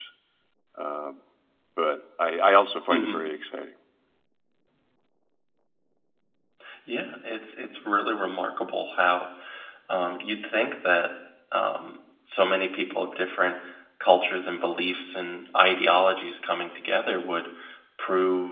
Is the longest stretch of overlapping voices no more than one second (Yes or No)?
Yes